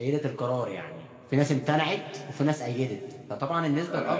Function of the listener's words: taking over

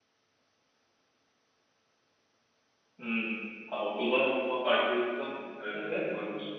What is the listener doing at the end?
taking over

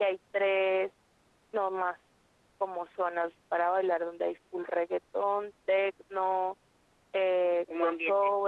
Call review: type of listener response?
listening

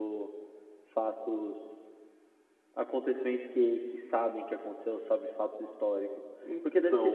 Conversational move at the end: listening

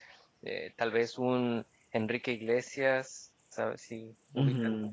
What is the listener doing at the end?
taking over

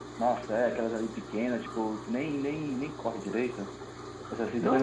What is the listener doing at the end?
taking over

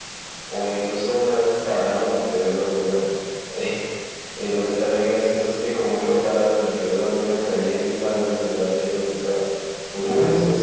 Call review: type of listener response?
listening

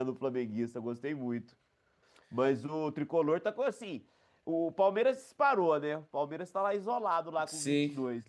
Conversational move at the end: taking over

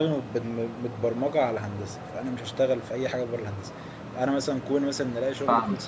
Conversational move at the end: listening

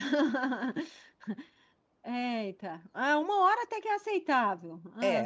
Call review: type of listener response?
taking over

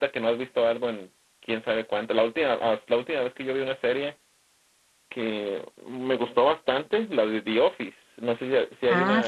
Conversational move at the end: taking over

